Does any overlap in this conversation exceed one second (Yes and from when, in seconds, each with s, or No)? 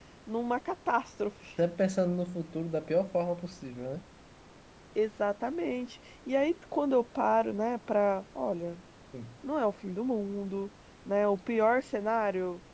No